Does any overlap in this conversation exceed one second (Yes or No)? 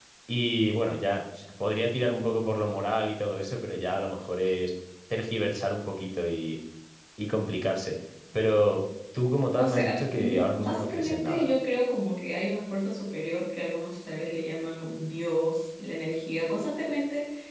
Yes